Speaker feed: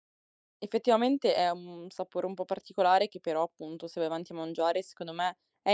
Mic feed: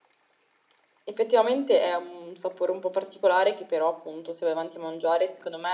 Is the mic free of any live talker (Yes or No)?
Yes